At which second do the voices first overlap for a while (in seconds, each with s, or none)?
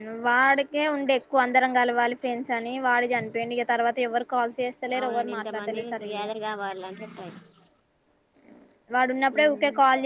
5.0 s